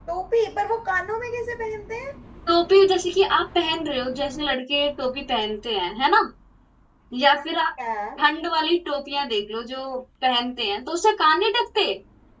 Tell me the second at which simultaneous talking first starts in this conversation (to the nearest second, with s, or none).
none